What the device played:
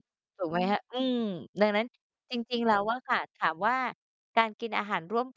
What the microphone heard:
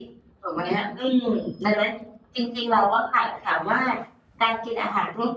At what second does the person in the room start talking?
none

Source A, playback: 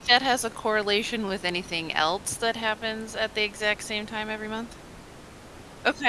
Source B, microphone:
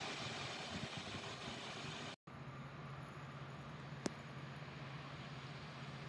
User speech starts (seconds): none

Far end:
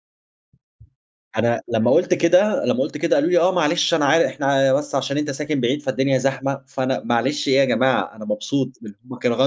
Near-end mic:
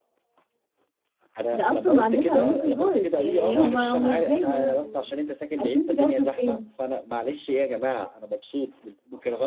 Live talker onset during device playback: 1.5 s

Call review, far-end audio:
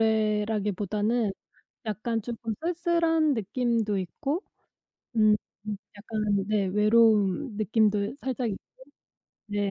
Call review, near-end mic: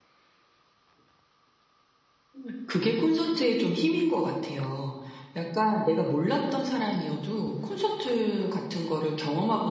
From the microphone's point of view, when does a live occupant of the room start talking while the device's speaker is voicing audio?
2.4 s

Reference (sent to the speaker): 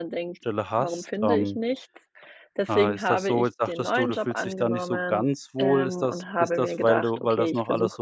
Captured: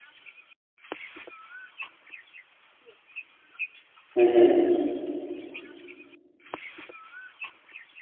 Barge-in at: 4.2 s

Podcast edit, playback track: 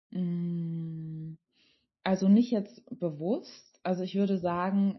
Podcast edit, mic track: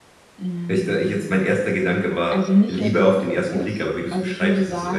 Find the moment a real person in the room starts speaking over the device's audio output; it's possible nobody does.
0.7 s

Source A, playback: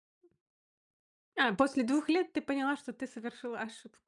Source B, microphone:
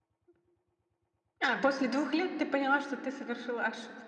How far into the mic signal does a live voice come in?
none

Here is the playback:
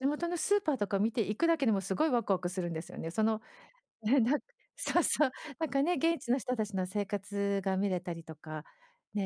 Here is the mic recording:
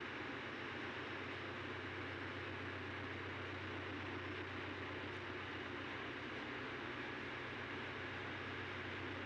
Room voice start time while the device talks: none

